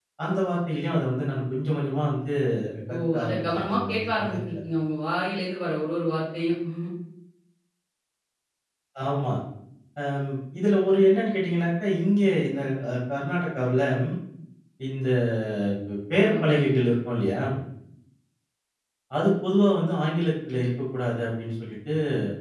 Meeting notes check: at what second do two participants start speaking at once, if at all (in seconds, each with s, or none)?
3.1 s